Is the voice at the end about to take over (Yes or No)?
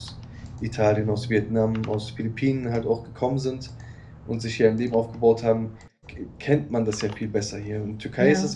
No